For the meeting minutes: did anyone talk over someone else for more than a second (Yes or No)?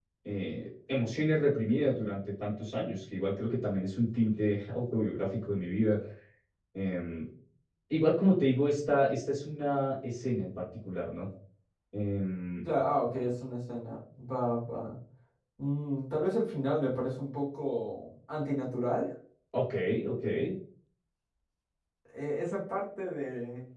No